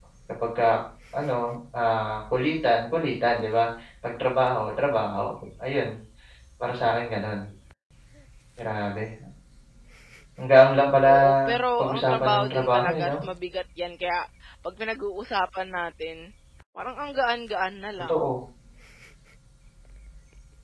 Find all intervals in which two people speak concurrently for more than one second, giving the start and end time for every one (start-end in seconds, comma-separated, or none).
11.8-13.2